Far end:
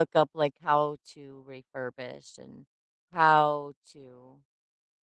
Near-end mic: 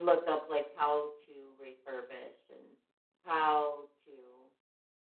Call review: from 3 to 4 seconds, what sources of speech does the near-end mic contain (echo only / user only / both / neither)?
echo only